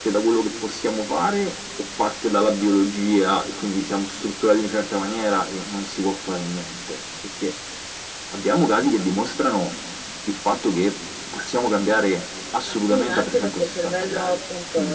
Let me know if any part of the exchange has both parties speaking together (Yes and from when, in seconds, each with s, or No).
Yes, from 12.7 s